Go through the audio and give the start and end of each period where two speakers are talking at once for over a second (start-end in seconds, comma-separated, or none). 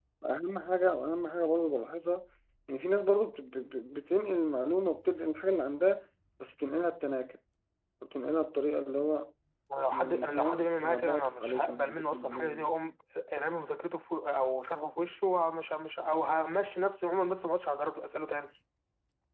9.9-12.7